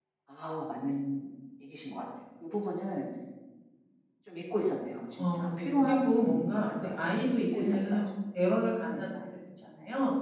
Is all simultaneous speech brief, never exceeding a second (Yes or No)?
No